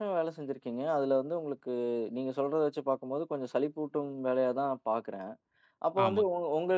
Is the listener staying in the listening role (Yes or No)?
Yes